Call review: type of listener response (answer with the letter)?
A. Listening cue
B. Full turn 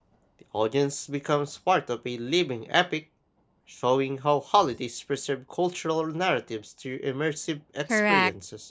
B